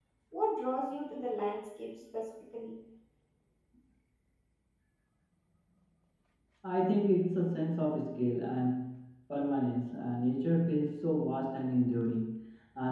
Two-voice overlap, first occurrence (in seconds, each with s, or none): none